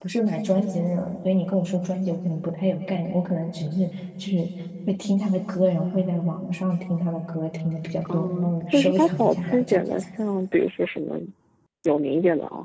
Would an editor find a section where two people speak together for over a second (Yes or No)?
Yes